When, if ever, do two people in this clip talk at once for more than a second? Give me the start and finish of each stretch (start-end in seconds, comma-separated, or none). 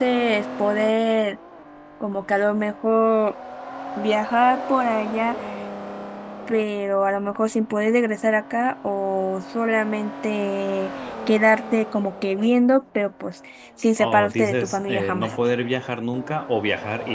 14.0-15.3